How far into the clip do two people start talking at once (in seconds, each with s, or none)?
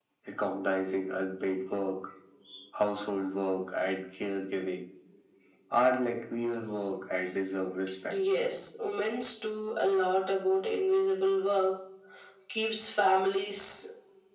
none